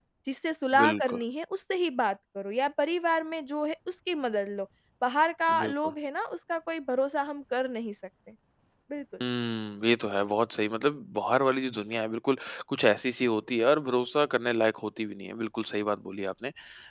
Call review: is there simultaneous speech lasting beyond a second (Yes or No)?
No